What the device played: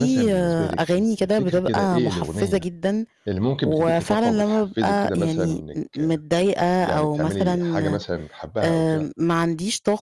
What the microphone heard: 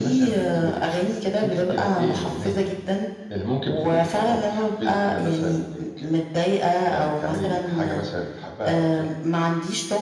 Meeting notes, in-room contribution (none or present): none